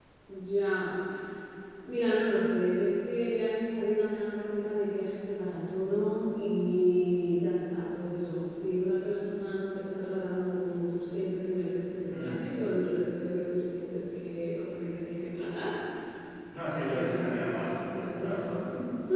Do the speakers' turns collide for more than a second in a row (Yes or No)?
Yes